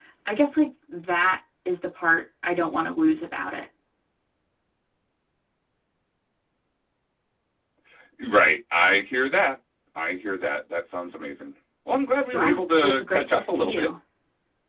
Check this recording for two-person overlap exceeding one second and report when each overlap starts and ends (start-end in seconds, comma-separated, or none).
12.3-13.9